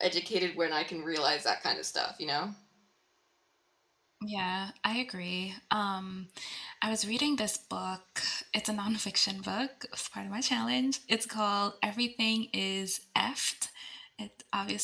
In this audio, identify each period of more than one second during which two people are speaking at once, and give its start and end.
none

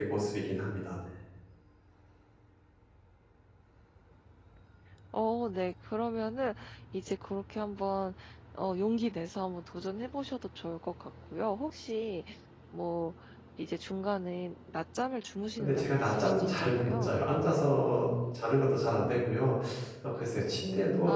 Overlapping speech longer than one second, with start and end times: 15.6-17.1

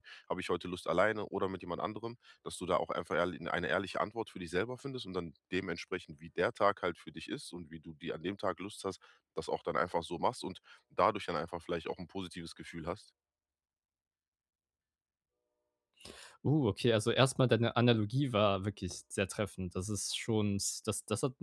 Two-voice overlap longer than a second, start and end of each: none

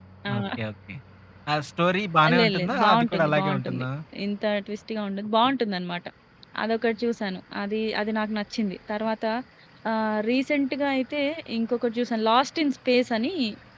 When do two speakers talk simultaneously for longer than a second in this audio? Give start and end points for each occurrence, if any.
2.4-3.8

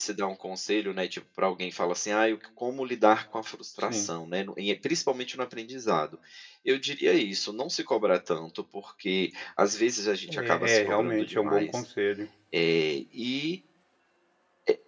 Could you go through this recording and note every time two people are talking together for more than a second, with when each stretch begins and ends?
10.3-11.8

